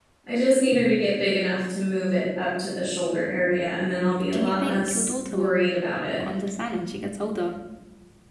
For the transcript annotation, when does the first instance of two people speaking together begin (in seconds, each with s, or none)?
4.3 s